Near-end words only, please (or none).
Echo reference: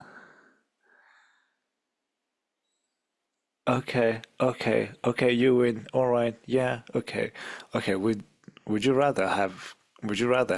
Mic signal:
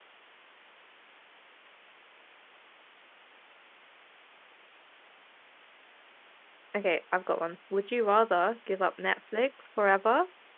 Okay, I've got one. Would you rather give up Netflix forever